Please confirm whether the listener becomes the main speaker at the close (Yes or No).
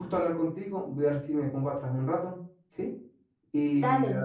No